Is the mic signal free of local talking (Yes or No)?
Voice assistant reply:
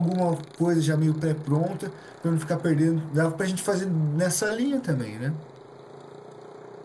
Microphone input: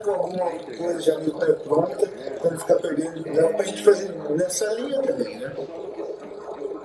No